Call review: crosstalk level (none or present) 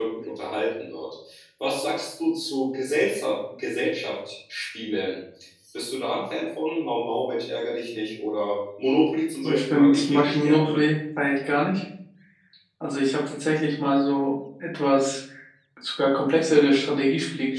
present